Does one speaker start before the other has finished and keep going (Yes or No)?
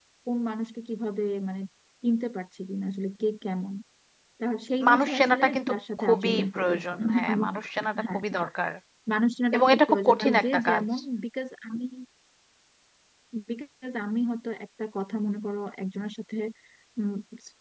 Yes